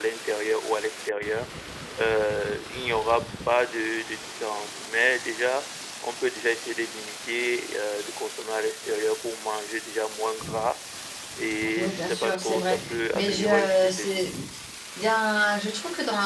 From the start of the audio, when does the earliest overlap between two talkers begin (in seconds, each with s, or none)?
11.8 s